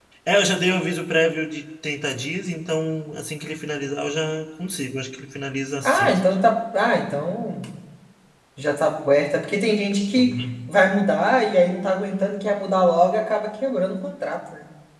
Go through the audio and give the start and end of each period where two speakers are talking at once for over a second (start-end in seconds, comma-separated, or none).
none